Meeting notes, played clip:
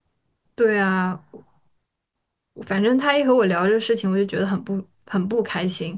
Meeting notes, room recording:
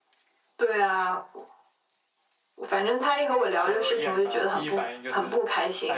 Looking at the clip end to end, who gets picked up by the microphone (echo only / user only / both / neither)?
both